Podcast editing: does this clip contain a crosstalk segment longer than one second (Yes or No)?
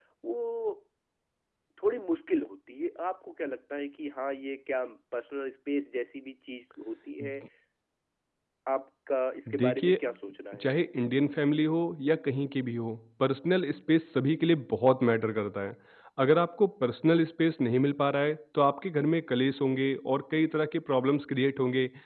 No